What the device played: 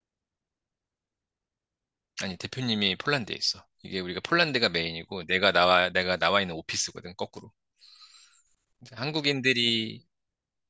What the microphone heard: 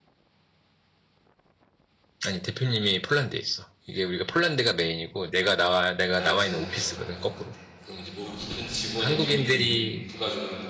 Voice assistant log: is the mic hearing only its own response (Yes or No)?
No